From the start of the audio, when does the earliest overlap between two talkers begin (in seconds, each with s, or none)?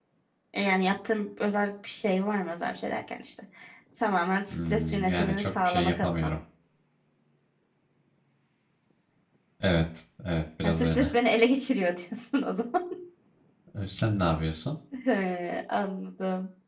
4.5 s